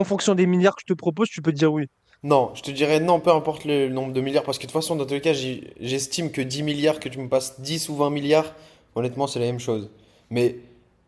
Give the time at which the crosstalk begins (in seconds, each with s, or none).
none